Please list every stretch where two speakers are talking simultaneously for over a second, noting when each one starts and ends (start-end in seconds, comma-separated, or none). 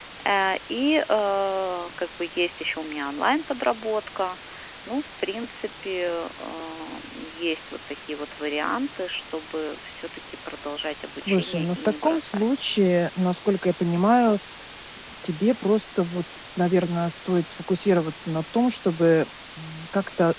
11.2-12.5